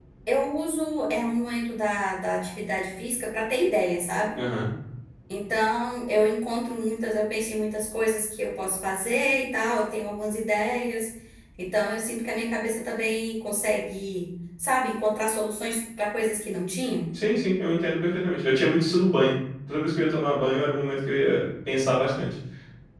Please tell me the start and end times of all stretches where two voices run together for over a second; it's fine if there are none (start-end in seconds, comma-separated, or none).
none